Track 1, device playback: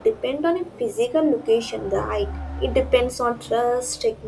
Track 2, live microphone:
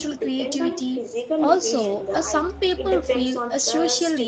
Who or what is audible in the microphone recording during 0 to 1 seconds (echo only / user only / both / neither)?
both